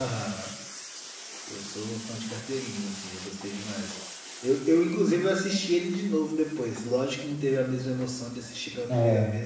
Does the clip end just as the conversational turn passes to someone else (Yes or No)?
No